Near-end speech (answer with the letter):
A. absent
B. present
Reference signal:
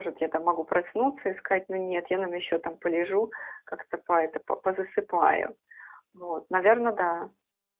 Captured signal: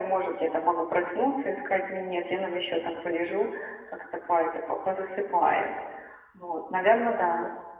A